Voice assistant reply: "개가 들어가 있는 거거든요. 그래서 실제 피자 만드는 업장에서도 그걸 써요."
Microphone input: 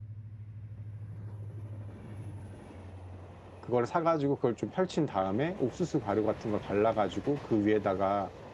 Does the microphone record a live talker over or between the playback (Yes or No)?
Yes